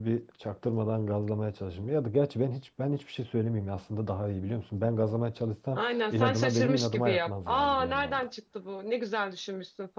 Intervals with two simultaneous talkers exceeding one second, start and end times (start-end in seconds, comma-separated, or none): 5.8-8.3